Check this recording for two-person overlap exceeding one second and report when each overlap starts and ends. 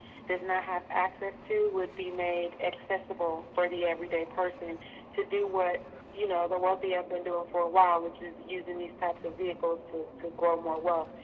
none

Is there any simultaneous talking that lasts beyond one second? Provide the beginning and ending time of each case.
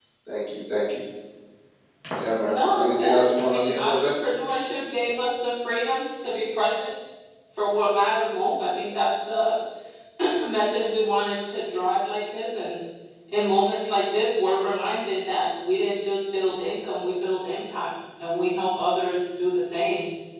2.4-4.1

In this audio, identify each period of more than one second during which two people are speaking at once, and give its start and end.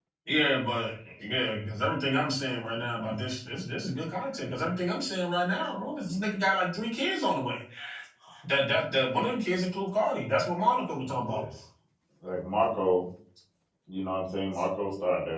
none

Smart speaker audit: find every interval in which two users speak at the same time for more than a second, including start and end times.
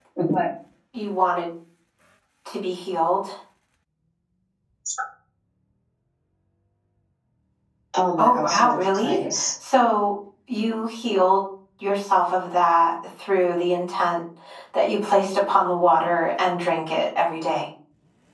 8.2-9.5

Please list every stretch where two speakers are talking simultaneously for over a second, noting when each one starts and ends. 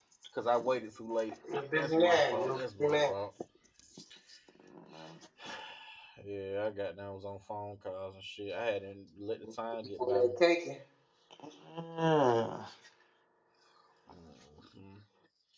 1.7-3.1

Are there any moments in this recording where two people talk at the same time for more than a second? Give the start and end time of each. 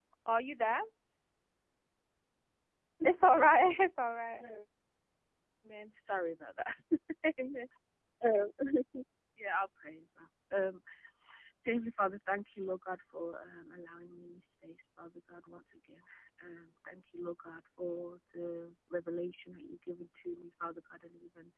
none

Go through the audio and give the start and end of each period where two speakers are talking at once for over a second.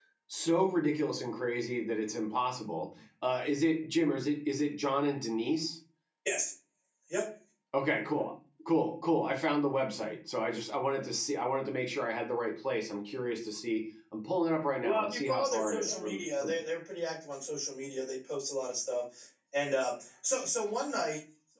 14.8-16.6

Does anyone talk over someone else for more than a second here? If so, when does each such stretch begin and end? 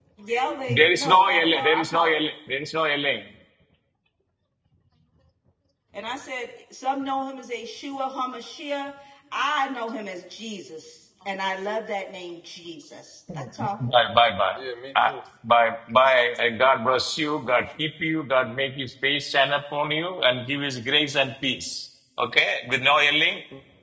0.7-2.2

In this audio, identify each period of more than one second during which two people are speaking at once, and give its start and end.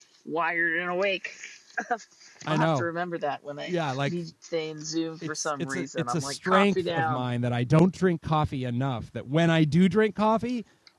5.2-7.2

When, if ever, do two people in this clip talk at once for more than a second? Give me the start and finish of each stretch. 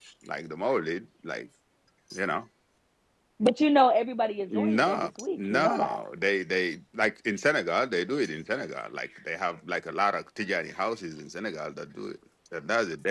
4.5-6.0

